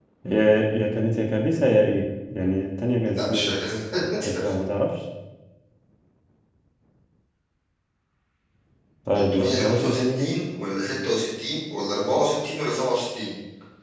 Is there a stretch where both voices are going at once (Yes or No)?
Yes